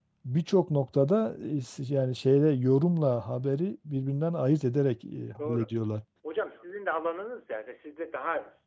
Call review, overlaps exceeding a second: none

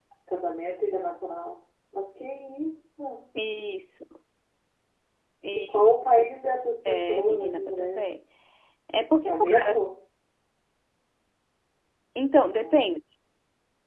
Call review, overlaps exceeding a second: present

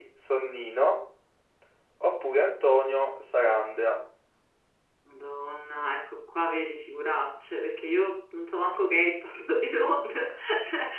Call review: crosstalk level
none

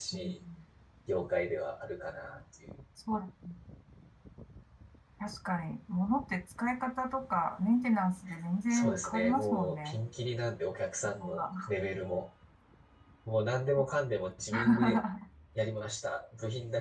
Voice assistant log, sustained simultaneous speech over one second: present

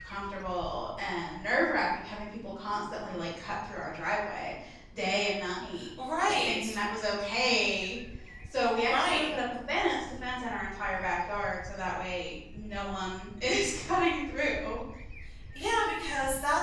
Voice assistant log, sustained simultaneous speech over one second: none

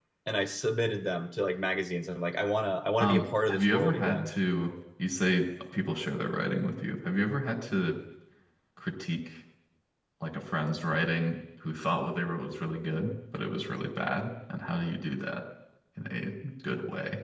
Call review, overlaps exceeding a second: present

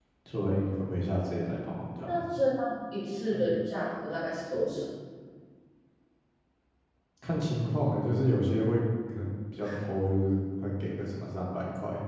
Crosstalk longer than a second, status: none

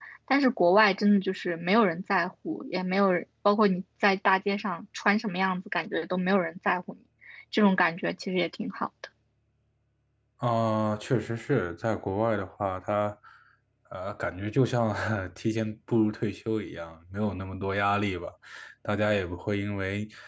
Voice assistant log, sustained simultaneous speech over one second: none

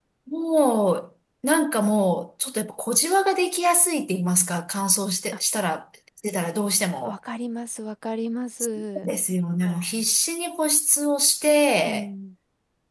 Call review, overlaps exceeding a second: none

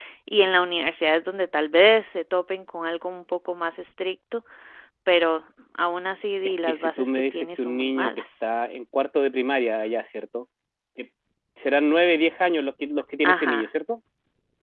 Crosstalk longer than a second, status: present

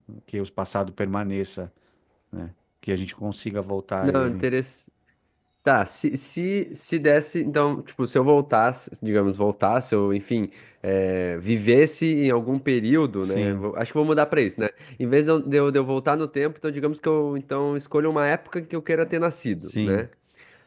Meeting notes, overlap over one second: none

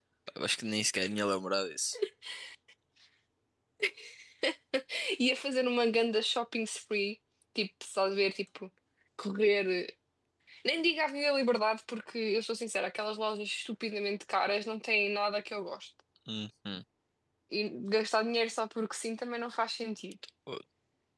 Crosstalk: none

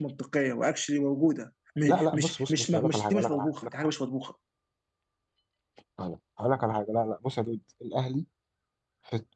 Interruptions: present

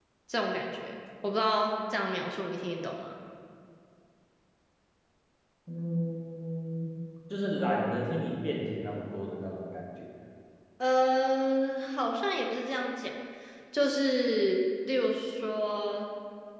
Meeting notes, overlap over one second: none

